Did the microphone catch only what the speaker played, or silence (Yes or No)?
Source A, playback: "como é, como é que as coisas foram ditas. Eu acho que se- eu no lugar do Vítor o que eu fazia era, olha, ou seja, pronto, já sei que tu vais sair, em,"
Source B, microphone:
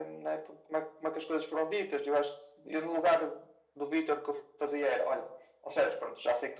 Yes